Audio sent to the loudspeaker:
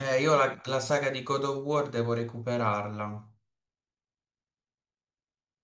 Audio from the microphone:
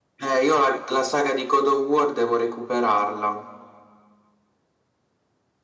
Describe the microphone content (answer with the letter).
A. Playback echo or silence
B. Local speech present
A